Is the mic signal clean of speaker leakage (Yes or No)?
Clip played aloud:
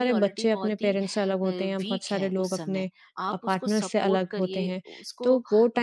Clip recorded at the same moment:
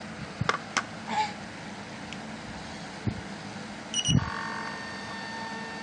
Yes